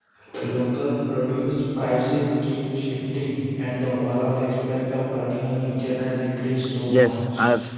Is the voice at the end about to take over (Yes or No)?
Yes